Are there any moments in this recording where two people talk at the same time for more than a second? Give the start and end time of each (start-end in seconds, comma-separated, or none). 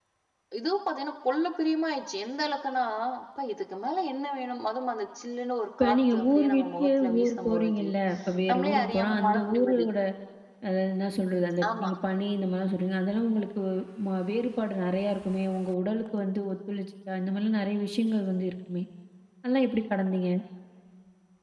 5.8-7.9, 8.5-9.9